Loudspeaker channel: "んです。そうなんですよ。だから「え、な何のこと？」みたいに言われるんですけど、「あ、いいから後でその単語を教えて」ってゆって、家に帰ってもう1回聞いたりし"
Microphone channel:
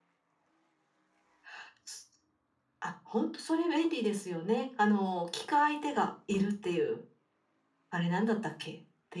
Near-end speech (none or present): present